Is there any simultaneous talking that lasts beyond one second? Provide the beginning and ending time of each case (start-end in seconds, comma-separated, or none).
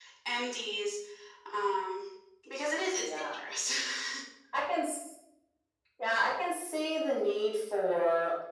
none